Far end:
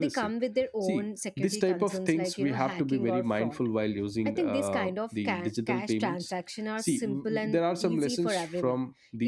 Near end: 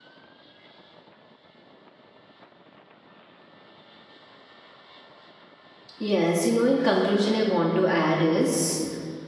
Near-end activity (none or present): present